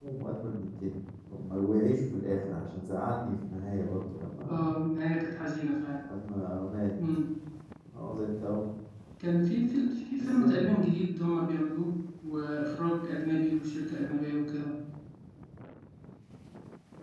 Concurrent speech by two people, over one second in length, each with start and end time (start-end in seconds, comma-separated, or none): none